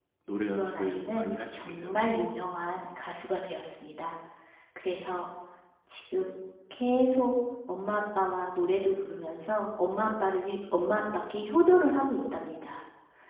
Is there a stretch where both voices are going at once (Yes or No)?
Yes